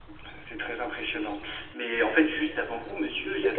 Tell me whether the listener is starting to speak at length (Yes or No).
Yes